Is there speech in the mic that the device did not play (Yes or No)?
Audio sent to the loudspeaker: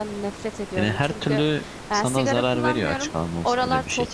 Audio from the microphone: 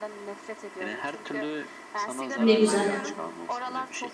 Yes